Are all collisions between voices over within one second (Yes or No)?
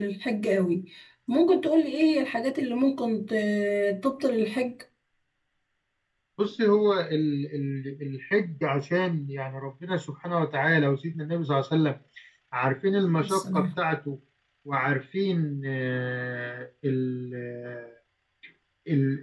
Yes